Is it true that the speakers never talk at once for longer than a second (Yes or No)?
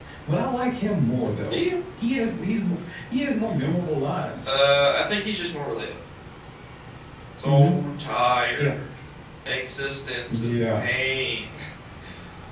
Yes